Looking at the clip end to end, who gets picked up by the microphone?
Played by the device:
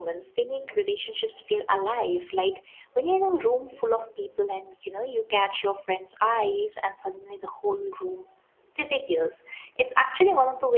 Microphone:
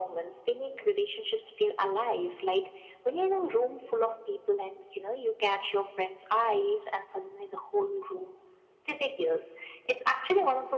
echo only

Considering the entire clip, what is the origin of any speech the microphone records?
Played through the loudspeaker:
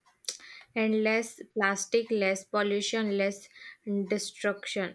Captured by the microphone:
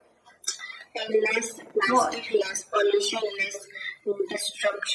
both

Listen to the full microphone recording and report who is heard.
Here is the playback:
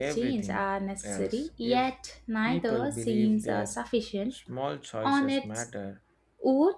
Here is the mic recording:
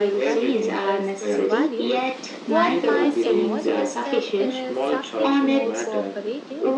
both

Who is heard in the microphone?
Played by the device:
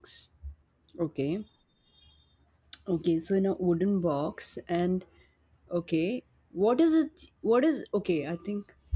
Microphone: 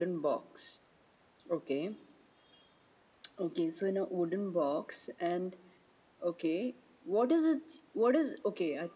echo only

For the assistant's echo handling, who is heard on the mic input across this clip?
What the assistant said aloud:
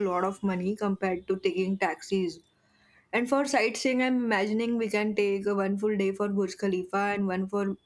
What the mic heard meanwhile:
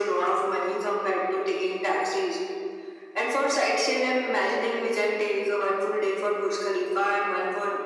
echo only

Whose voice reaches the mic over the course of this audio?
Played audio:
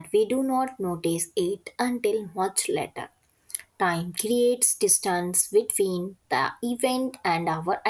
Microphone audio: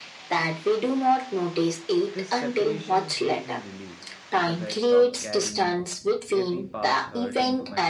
both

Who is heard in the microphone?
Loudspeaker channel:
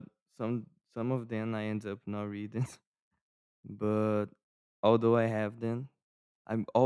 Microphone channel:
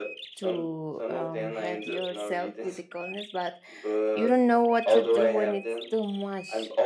both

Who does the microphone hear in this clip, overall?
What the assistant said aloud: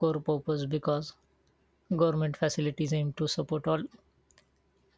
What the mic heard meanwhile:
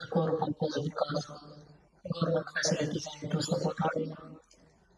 echo only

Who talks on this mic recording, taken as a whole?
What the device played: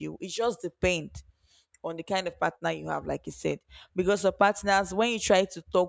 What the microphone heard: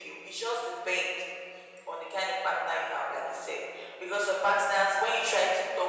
echo only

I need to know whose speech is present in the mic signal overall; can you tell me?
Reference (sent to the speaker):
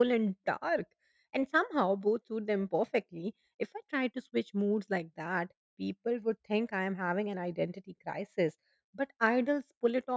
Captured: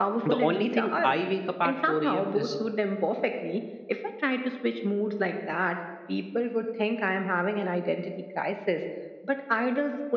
both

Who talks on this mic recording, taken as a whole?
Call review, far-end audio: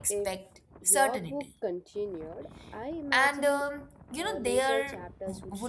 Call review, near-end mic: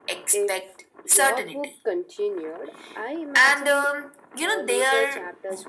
echo only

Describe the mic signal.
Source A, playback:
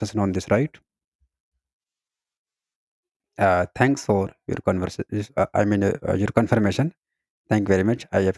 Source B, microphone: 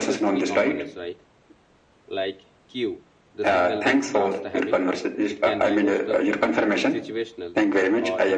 both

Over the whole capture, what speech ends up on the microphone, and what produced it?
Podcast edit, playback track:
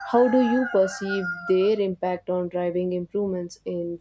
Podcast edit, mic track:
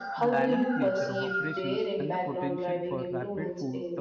both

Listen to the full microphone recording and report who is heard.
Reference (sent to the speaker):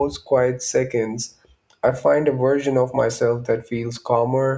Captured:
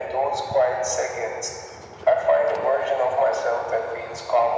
echo only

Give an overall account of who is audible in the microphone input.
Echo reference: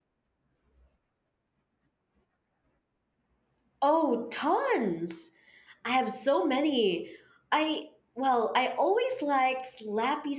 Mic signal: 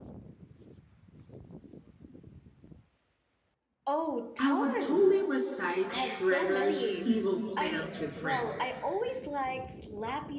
both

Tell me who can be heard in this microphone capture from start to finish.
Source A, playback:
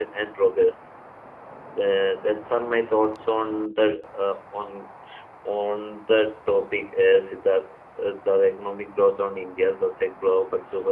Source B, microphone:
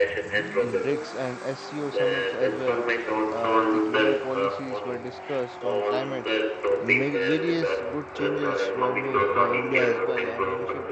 both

